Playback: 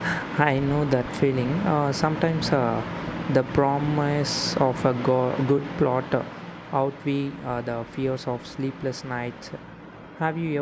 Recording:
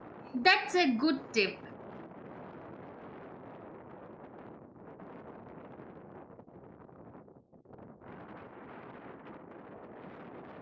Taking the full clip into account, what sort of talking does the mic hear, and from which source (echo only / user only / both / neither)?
user only